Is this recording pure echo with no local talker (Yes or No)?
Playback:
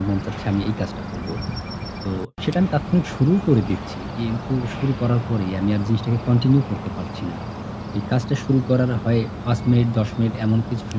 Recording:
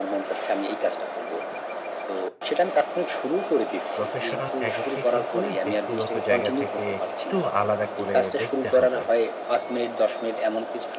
No